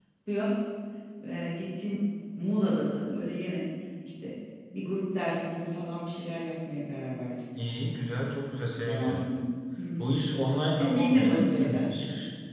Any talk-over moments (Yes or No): Yes